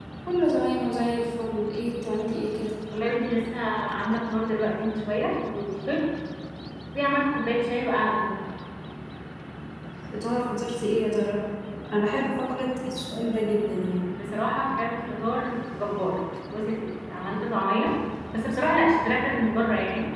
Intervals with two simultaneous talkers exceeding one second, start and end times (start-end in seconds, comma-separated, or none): none